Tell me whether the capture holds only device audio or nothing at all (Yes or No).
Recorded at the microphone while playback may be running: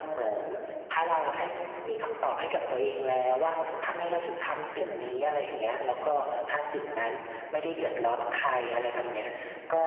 No